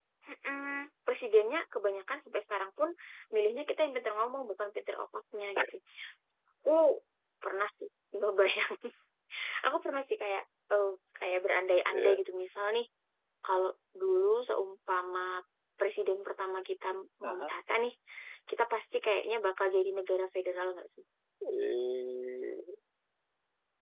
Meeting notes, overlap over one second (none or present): none